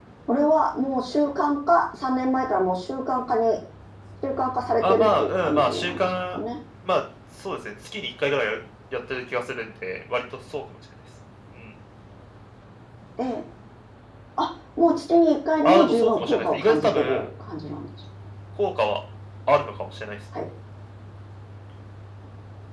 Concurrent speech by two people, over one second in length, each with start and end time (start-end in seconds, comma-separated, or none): 4.8-6.4, 15.6-17.2